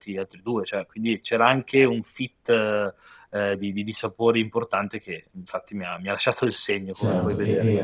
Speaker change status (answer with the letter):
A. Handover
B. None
A